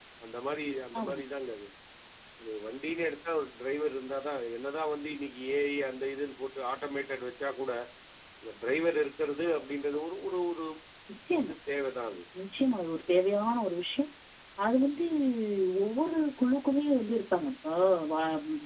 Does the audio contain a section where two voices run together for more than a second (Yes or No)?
No